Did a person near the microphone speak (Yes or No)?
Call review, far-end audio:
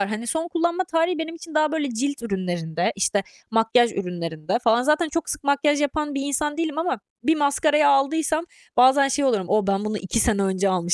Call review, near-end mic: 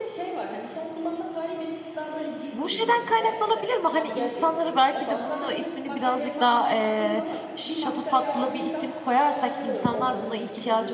Yes